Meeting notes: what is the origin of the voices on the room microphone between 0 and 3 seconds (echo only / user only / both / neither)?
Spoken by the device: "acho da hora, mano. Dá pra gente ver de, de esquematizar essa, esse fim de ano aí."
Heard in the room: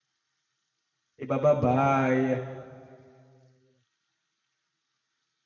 user only